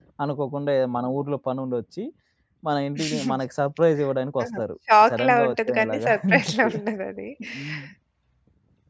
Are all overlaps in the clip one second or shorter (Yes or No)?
No